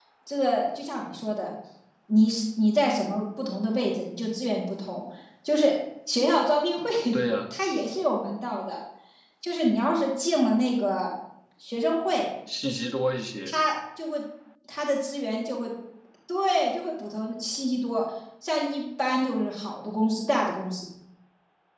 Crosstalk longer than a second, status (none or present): none